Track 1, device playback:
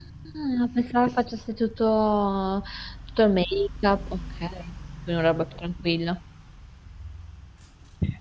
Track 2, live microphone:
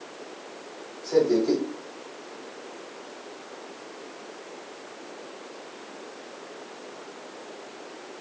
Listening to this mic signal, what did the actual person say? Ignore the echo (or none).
Senti, e che,